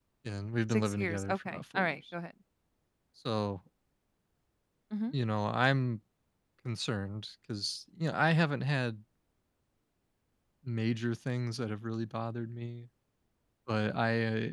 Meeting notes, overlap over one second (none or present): present